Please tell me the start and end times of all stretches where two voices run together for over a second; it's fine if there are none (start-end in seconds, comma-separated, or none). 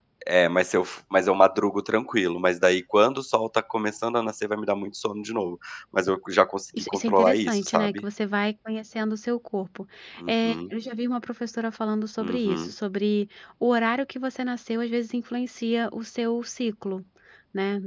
6.8-8.0